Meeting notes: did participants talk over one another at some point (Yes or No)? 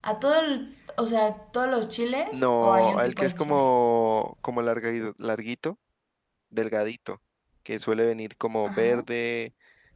Yes